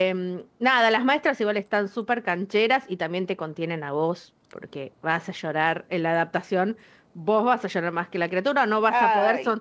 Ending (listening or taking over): listening